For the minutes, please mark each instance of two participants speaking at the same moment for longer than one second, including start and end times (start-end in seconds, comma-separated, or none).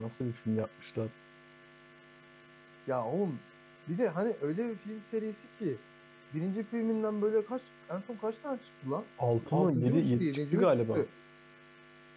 9.5-11.1